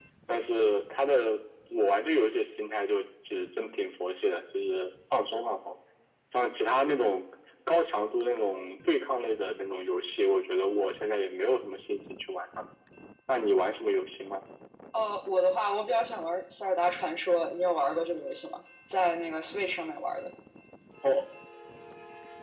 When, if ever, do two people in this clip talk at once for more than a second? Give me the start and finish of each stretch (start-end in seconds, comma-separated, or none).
none